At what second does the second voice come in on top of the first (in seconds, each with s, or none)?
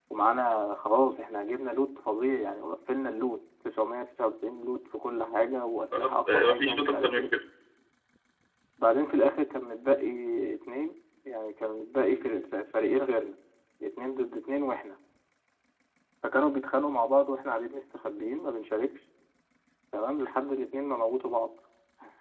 5.9 s